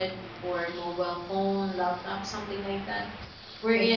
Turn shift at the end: No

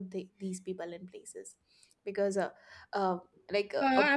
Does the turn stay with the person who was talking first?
No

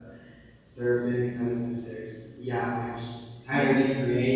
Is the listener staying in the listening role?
Yes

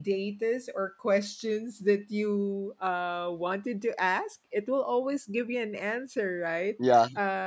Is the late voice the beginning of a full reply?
No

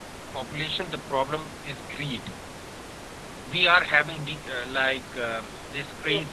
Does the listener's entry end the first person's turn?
No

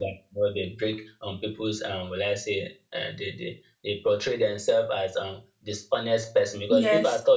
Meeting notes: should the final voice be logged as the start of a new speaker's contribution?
No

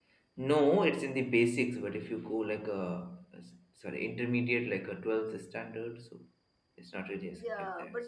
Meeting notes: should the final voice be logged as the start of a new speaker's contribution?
Yes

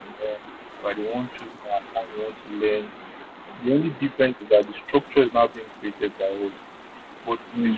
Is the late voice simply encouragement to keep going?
Yes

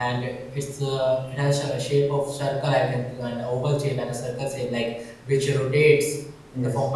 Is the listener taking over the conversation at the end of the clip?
No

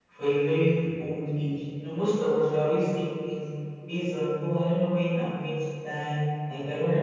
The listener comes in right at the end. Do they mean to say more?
No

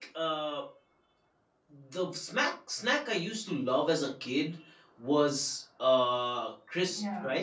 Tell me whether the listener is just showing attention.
No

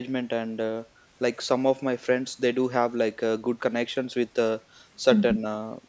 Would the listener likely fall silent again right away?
Yes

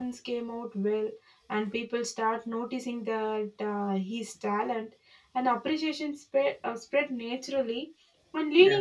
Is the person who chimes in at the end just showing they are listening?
Yes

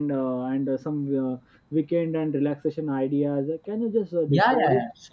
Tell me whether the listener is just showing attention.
No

